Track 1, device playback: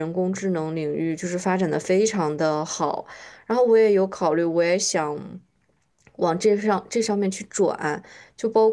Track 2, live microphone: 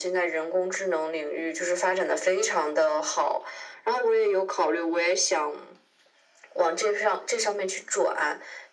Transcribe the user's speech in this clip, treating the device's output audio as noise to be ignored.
none

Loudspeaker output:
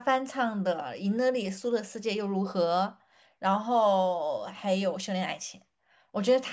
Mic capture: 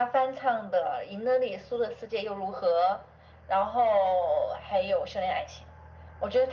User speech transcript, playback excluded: none

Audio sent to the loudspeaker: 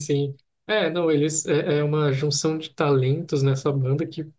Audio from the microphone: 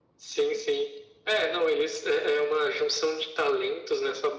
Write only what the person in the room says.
none

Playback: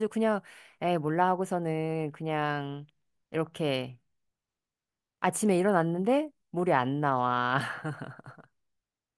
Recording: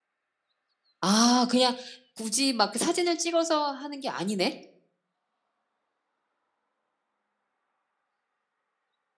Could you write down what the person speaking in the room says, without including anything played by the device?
아, 그냥 굳이 막그 사진을 찍어서 하는 게 아니네?

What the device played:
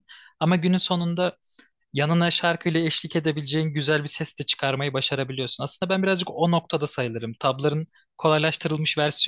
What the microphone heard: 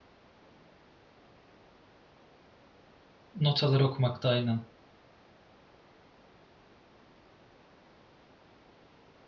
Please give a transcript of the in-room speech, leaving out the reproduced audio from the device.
Notaları okumakta aynen.

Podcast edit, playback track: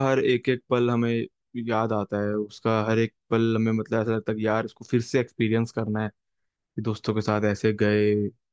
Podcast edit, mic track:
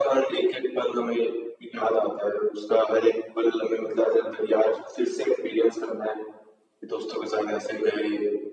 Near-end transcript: none

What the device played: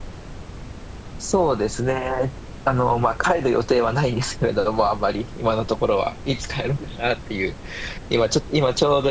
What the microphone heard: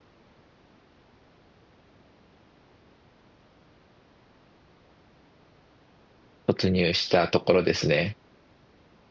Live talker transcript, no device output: 突入したところですね。

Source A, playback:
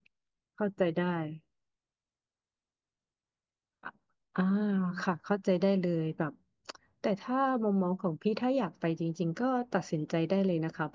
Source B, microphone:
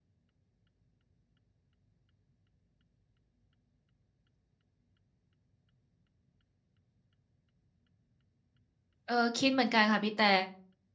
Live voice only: เออคิดเหมือนกันค่ะพี่แต่

